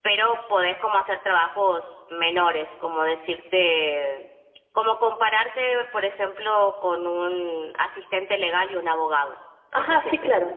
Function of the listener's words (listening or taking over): taking over